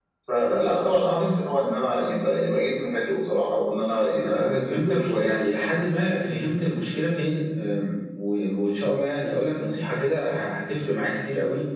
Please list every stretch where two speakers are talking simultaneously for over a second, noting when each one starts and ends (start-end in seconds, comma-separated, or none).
3.9-5.4